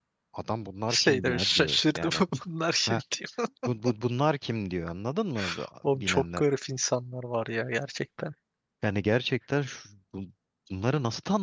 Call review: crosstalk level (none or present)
present